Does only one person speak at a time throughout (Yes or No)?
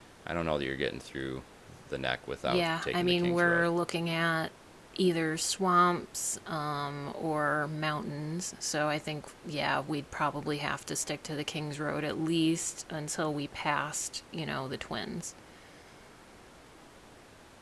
No